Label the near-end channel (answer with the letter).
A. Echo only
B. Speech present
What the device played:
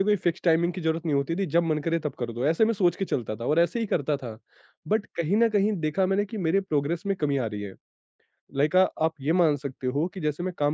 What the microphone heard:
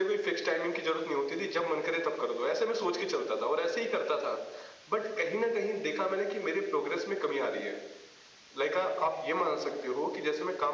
A